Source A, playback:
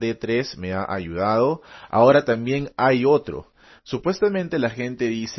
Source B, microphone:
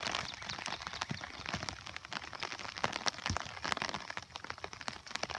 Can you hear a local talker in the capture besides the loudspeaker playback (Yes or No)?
No